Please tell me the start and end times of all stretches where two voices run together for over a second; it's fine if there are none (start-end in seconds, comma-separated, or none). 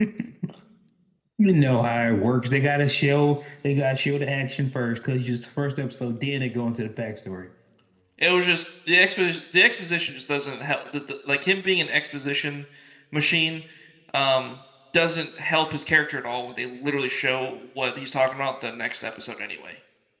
none